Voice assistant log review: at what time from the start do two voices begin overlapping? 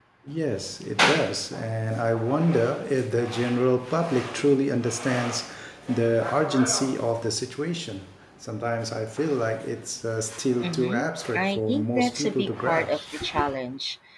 11 s

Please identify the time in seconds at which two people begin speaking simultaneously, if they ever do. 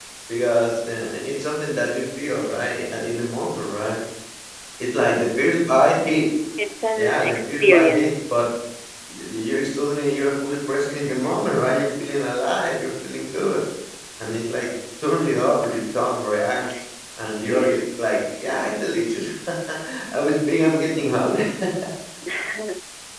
7 s

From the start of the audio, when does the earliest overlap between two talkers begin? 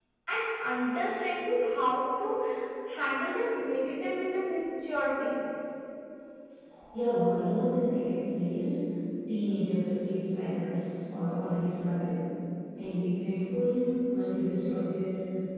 none

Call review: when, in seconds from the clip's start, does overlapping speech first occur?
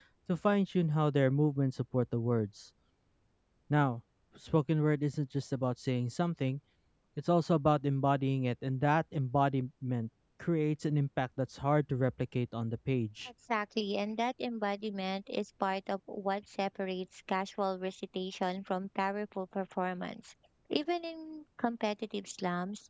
none

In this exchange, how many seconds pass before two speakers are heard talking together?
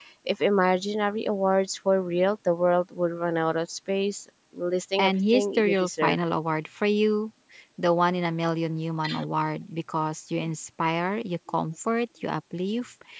5 s

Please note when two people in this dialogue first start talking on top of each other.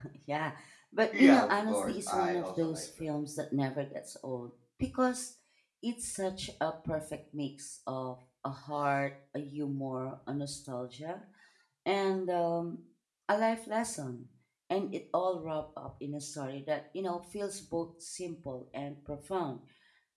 1 s

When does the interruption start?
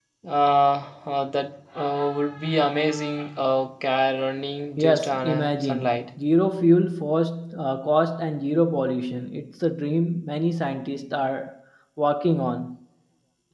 5 s

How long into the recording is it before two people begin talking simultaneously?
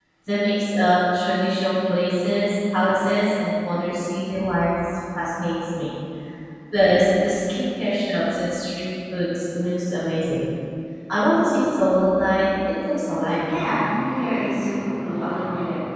none

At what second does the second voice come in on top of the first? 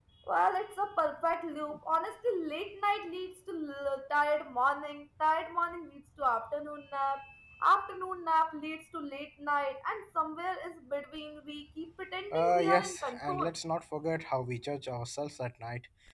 12 s

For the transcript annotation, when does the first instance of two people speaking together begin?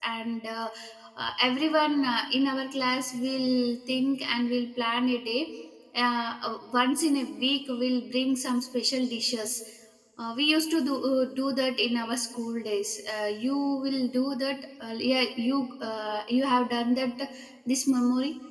none

